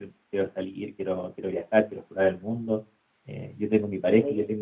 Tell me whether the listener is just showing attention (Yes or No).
Yes